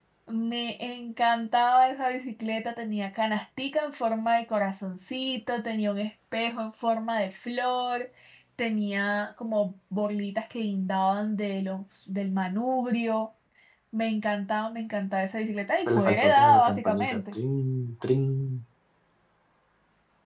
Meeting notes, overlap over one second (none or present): present